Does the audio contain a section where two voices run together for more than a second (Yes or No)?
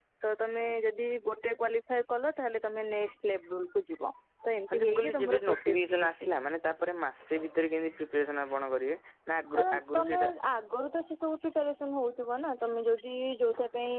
Yes